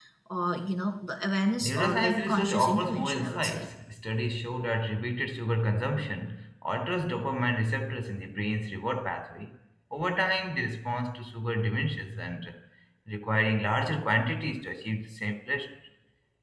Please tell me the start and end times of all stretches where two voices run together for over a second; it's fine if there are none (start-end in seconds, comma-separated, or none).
1.6-3.6